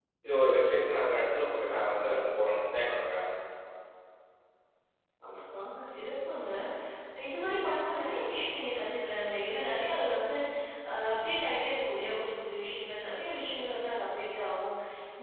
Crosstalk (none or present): none